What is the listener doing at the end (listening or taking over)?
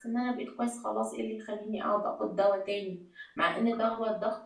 listening